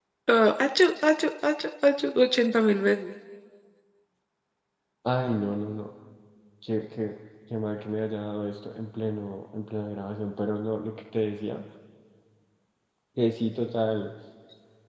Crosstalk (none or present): none